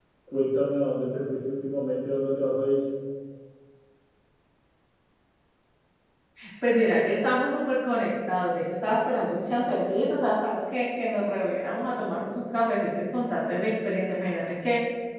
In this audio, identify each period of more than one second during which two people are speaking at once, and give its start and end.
none

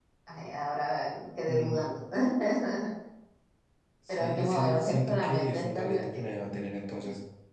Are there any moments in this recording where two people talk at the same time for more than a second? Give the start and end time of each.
4.1-6.2

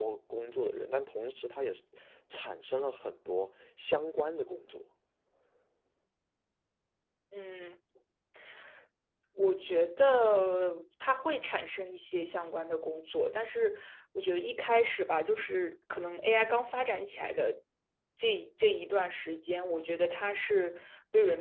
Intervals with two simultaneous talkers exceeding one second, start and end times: none

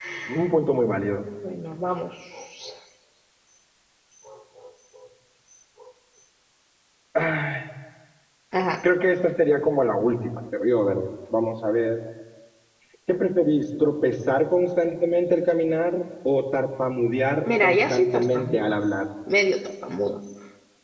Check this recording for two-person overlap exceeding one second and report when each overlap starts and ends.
17.4-18.7

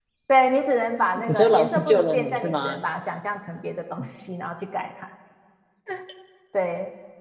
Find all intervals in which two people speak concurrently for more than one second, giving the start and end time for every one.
1.2-2.7

